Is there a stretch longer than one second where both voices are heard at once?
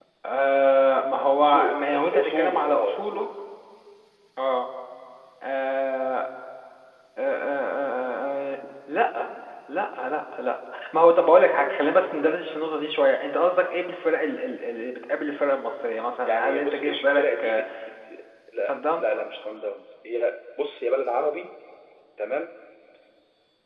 Yes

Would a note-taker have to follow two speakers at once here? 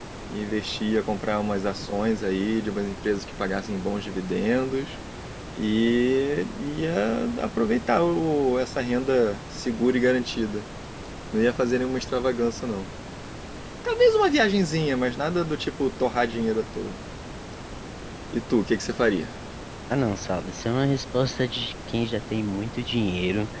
No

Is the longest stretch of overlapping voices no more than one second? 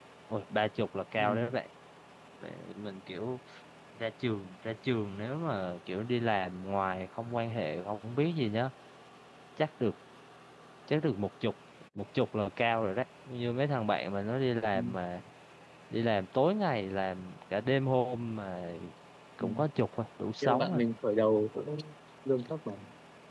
Yes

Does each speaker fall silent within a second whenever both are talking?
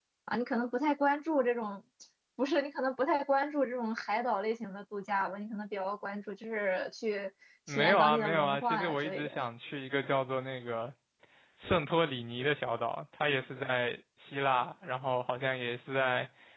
No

